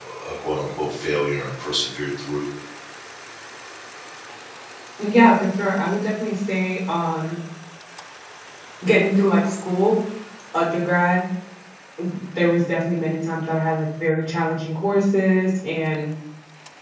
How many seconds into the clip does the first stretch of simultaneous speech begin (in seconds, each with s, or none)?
none